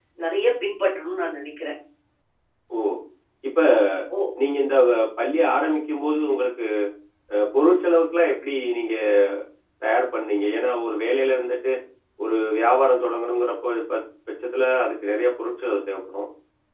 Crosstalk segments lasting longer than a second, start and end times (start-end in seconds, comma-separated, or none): none